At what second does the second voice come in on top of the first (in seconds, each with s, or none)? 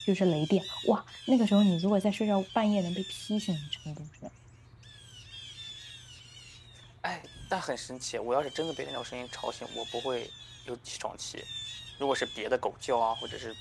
none